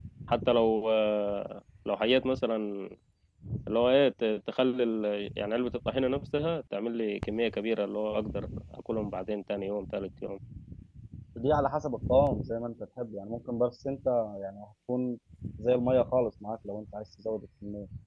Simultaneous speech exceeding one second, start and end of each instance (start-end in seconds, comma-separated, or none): none